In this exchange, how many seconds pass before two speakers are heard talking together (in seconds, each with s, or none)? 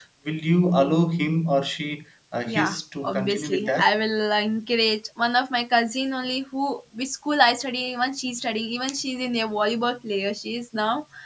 2.5 s